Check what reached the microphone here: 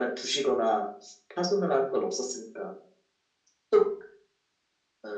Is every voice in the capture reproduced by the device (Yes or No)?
Yes